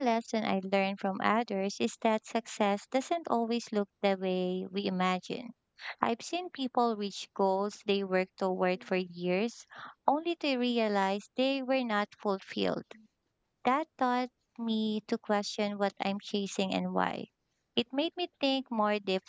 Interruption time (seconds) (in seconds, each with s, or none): none